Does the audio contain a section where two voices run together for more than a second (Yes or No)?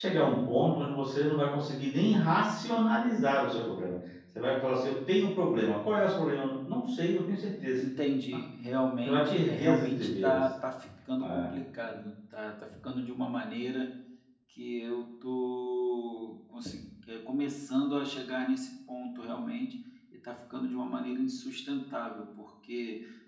Yes